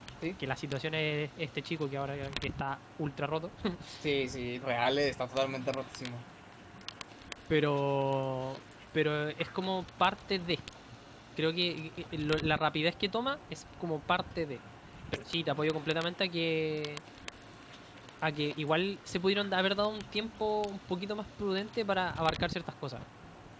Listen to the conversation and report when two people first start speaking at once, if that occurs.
none

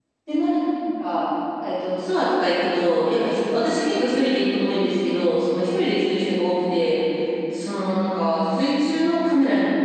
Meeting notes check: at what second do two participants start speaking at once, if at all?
none

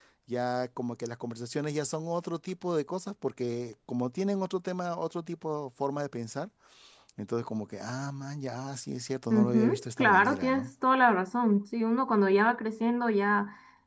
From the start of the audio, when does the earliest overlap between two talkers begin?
9.3 s

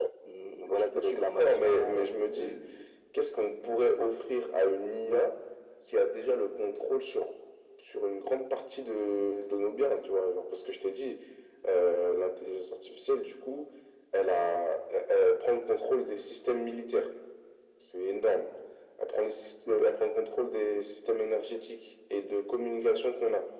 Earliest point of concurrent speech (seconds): 0.7 s

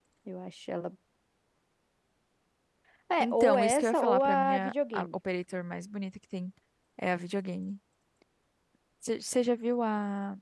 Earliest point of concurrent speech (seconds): 3.2 s

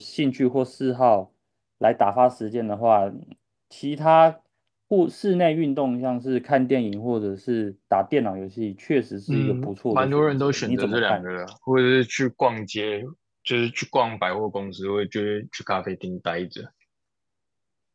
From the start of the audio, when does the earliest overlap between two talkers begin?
9.3 s

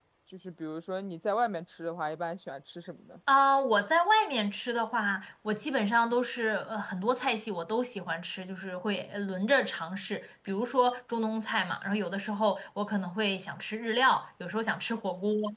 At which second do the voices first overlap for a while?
none

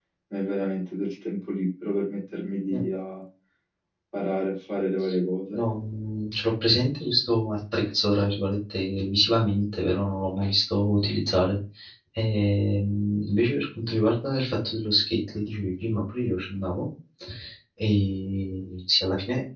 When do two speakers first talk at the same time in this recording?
none

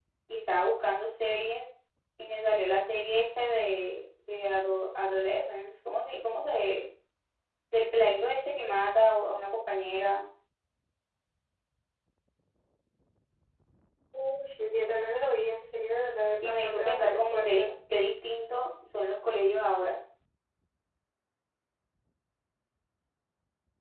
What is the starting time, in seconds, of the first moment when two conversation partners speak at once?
16.4 s

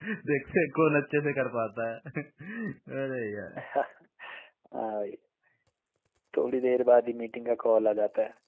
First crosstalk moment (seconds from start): none

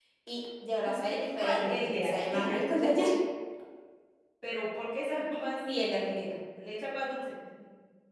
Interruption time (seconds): 1.4 s

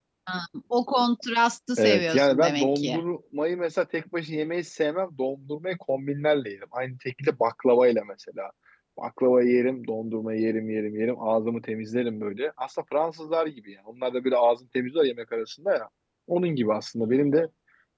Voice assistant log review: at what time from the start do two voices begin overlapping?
1.8 s

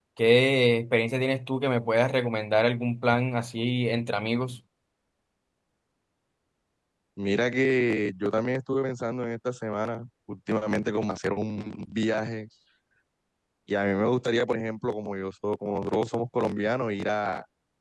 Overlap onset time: none

